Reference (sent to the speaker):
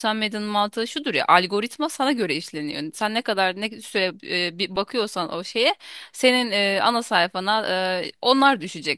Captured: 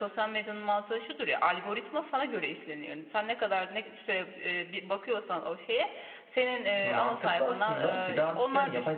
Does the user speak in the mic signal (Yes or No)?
Yes